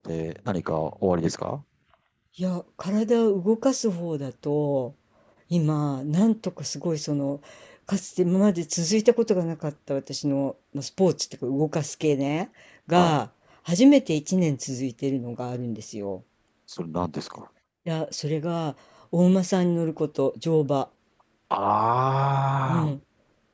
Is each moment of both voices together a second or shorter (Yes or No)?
Yes